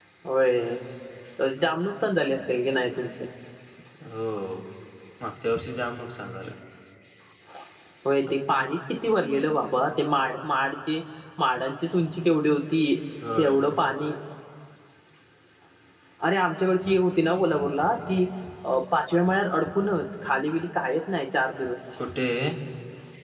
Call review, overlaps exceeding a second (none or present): none